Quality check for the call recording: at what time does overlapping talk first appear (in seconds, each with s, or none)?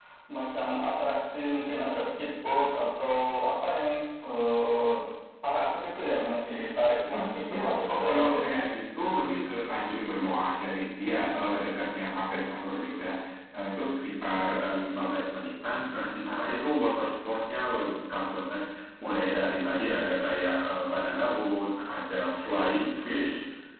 7.0 s